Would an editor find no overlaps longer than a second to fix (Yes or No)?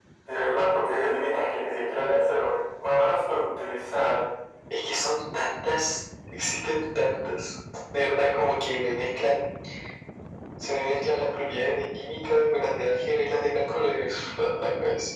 Yes